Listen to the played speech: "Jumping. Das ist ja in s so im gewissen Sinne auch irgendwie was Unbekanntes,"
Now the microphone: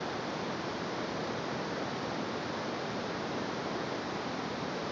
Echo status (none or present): none